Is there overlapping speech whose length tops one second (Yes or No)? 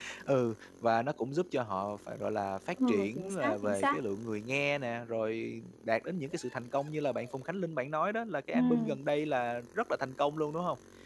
Yes